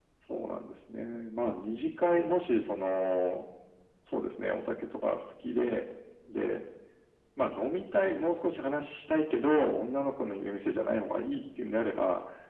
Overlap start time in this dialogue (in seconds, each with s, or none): none